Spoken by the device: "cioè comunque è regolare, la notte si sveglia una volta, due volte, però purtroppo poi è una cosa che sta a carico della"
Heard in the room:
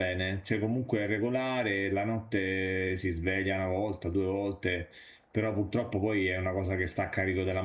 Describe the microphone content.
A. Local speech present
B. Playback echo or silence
B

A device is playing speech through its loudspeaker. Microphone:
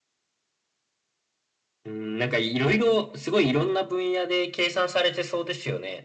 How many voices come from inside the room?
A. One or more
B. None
B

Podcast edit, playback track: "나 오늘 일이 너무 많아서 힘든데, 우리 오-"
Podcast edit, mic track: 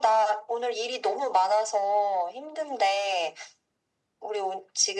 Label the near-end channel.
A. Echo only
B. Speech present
A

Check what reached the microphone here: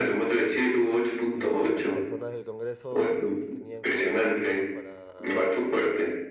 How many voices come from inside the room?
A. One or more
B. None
A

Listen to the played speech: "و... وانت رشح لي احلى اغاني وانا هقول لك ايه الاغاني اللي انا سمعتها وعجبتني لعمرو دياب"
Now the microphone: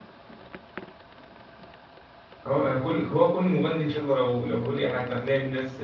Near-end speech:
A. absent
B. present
B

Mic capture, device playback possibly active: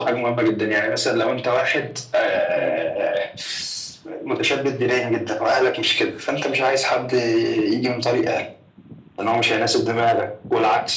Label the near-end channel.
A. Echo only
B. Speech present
B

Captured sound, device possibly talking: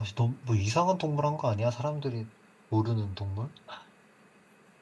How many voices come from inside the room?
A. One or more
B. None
A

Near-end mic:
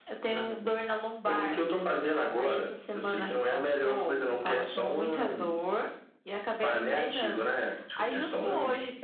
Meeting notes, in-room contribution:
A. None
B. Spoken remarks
A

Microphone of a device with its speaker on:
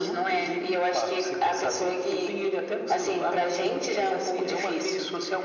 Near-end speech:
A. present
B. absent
B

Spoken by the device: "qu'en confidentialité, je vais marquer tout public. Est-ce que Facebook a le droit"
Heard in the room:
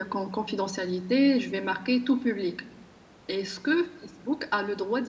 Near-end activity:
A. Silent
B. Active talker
A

